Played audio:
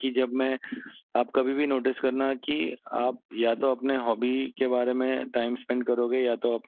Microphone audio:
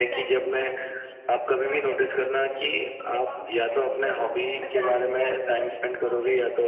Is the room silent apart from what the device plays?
No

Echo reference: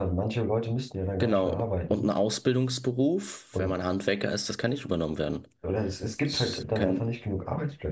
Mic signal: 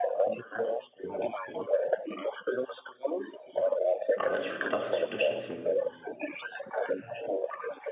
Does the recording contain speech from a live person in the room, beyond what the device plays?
Yes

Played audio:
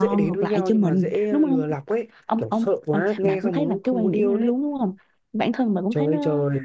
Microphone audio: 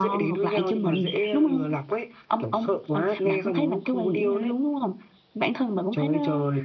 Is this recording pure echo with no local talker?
Yes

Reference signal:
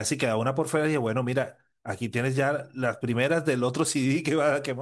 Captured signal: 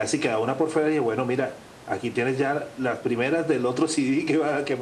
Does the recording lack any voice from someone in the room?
Yes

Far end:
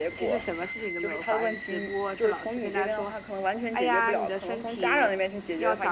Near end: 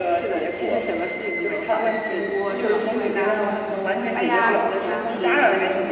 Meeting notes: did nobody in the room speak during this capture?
No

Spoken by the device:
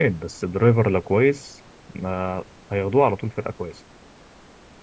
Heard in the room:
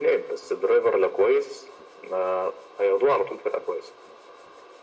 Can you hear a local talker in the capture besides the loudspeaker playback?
No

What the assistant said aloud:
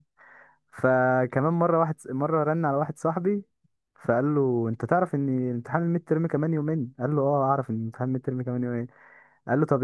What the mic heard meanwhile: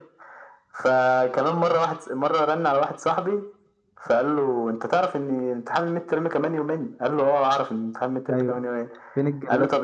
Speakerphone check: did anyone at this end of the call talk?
Yes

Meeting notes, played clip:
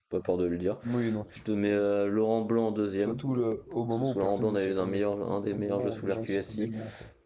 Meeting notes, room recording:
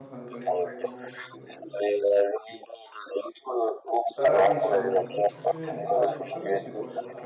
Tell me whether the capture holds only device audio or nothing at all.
No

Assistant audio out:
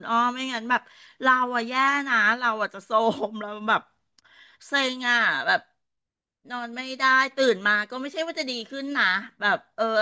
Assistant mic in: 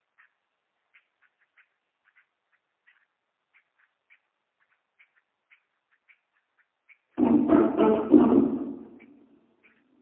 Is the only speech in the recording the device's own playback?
No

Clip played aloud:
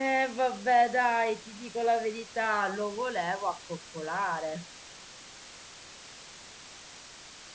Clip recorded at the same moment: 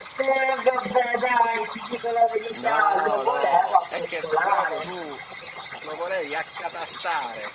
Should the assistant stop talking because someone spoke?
Yes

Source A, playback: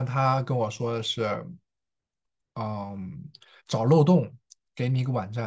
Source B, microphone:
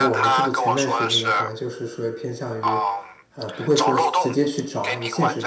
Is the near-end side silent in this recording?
No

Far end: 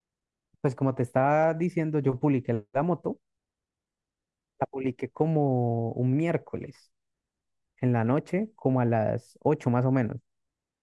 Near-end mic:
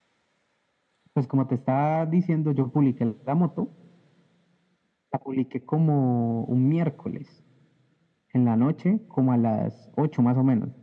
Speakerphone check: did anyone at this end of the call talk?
No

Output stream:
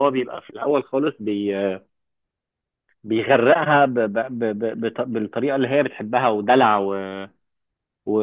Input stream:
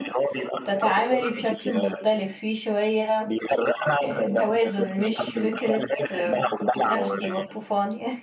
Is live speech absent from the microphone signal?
No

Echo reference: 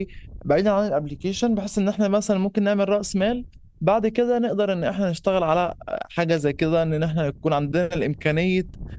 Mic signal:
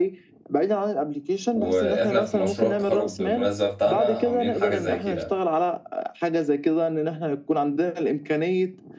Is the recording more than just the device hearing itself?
Yes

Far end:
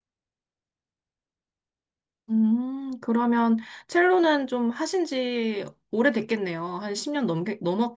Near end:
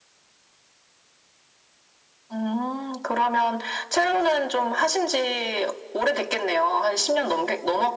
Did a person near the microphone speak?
No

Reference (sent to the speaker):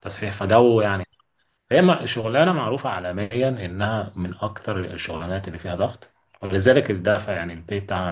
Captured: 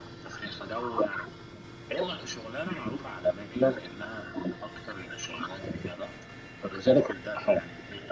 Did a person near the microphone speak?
No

